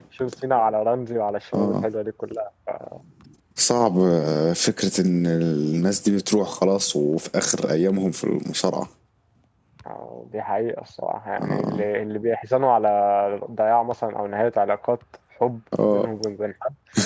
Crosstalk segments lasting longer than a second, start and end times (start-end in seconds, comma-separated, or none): none